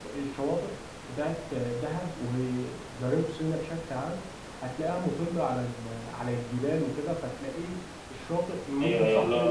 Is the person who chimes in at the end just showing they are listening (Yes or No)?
No